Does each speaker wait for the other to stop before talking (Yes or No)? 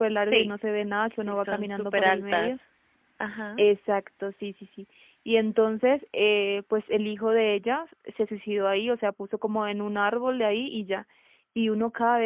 No